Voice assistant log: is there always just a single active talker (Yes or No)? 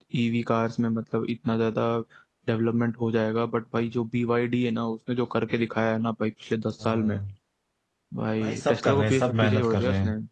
No